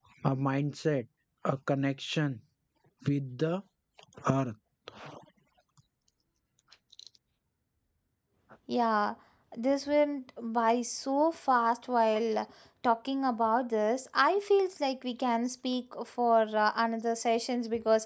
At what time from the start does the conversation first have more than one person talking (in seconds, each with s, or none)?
none